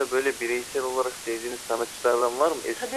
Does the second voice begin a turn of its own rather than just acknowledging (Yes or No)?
Yes